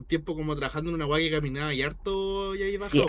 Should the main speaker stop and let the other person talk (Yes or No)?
Yes